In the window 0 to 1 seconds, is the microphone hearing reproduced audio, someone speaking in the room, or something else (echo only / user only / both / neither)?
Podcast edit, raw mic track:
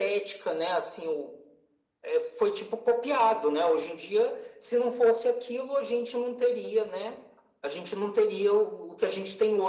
echo only